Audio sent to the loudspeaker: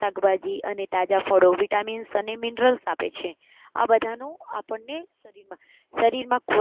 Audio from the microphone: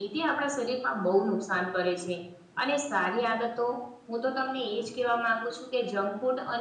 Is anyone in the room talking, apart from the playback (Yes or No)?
Yes